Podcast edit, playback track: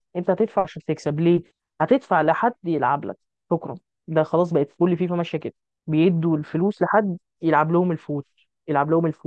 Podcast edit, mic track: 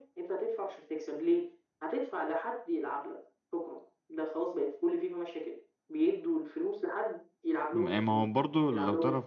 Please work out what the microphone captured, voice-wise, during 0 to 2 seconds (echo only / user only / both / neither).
echo only